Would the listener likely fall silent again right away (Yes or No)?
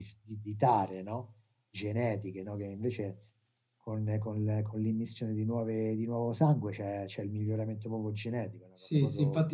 No